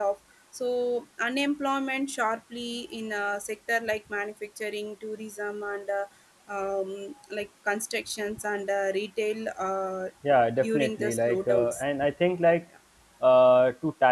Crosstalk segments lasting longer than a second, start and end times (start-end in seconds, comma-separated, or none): 10.6-11.8